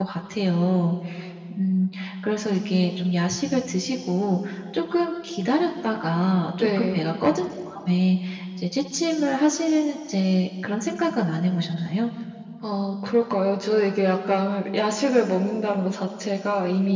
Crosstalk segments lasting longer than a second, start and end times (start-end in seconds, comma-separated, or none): none